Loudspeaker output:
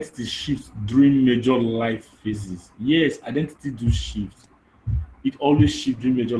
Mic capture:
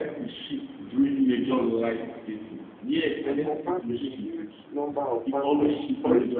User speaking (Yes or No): Yes